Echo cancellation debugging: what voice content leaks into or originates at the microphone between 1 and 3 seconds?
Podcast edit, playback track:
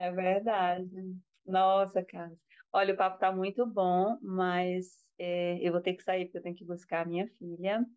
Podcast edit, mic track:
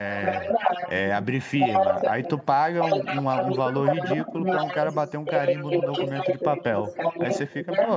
both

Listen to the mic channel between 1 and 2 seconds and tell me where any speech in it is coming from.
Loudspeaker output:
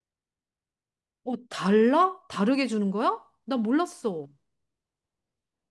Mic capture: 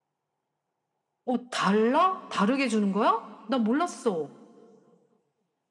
echo only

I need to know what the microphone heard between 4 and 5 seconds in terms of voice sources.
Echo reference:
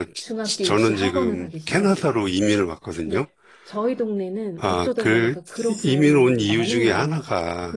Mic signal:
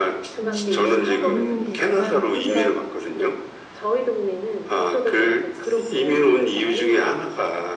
echo only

